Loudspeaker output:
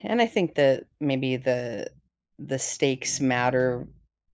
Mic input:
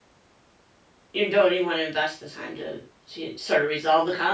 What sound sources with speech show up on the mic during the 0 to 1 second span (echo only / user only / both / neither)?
neither